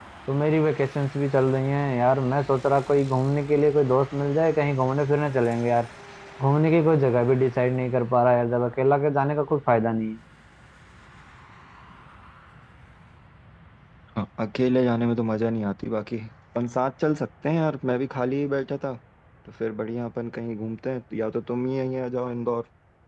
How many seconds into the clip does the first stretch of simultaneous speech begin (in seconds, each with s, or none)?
none